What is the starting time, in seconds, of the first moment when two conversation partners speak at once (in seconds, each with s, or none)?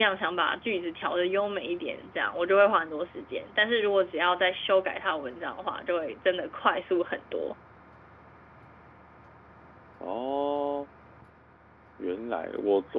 none